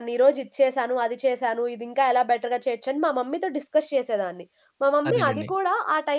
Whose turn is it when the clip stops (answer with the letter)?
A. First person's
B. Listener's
A